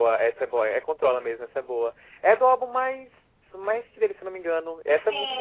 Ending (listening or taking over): taking over